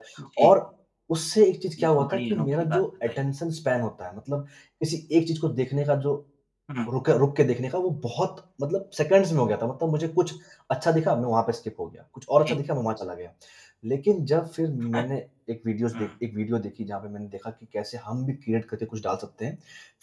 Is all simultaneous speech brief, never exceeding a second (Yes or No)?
No